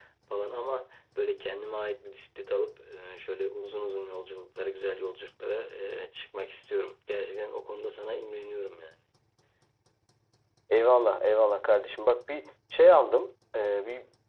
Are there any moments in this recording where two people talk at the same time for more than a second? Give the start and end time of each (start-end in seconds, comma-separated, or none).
none